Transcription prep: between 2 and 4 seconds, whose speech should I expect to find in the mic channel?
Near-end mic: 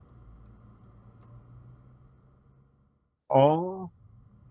user only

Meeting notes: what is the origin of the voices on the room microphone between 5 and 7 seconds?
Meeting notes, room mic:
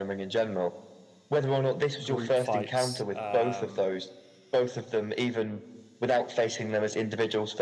echo only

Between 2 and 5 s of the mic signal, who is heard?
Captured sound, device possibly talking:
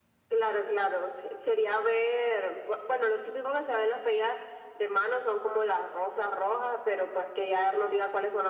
echo only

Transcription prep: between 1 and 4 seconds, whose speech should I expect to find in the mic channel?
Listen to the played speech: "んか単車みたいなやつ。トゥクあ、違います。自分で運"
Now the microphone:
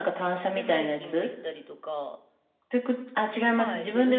both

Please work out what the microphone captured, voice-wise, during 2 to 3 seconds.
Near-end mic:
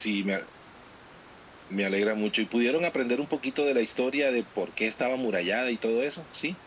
echo only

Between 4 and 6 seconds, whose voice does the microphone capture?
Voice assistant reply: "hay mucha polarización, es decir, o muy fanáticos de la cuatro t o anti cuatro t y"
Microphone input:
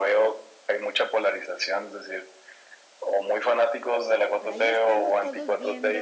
both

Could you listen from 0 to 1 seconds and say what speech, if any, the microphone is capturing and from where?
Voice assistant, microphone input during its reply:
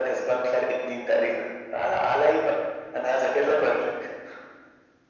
echo only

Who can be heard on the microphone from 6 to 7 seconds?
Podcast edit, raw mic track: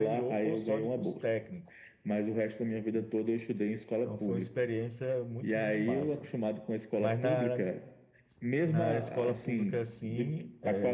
both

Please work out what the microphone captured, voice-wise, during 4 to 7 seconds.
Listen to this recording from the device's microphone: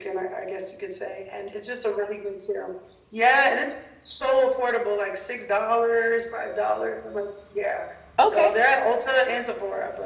echo only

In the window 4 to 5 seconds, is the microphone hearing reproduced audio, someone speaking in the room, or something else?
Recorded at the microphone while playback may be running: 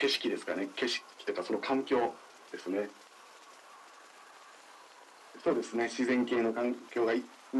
neither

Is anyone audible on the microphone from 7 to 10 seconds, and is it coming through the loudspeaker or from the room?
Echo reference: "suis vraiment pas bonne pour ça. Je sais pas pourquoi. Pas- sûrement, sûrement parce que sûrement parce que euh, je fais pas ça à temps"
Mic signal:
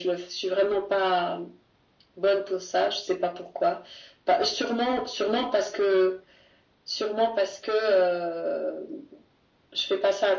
echo only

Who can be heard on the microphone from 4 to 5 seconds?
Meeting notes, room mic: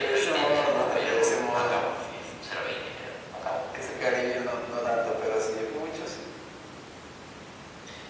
echo only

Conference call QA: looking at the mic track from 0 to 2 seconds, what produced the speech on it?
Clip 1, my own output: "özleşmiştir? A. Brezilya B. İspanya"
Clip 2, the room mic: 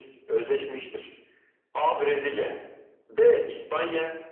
echo only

